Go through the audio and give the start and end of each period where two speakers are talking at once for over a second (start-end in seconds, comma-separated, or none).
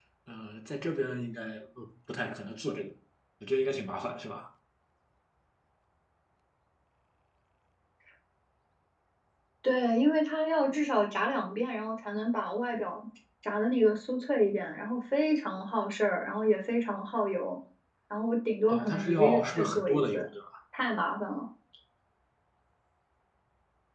18.7-20.3